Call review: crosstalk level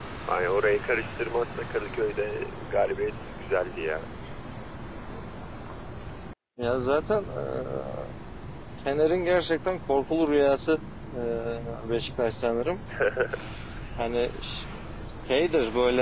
none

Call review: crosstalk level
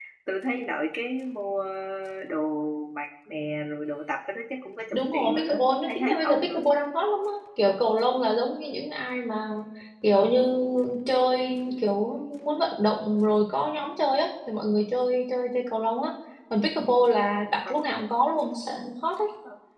present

